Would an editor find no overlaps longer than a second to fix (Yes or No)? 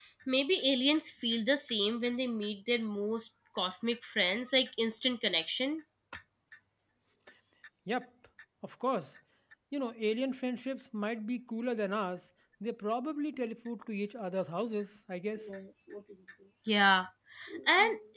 Yes